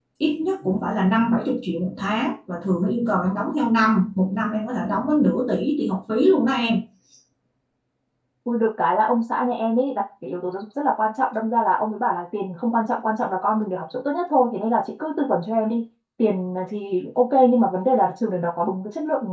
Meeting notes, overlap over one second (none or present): none